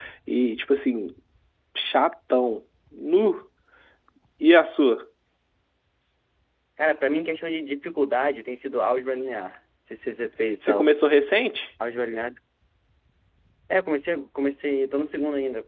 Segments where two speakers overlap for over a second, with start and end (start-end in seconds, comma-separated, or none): none